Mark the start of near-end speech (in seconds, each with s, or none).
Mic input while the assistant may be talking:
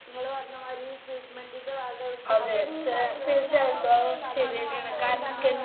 2.3 s